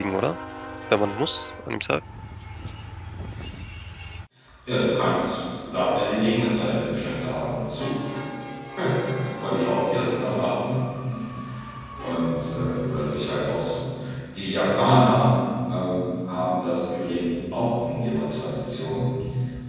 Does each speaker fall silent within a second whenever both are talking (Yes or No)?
Yes